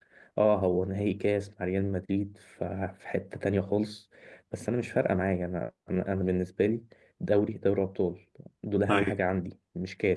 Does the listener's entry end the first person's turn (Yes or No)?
No